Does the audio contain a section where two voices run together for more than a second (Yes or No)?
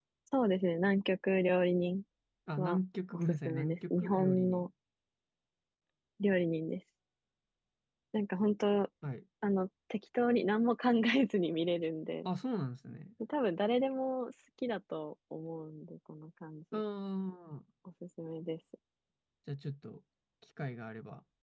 Yes